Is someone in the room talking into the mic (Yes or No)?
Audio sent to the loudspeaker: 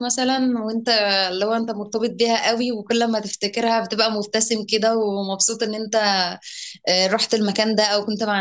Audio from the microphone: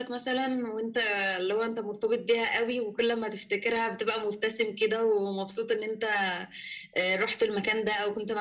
No